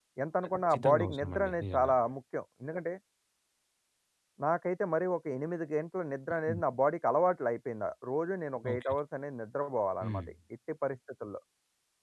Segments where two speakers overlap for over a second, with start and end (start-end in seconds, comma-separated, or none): 0.7-1.9